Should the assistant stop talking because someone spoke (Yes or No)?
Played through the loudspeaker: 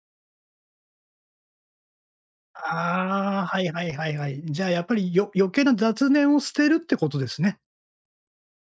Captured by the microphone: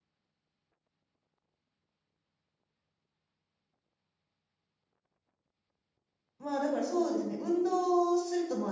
Yes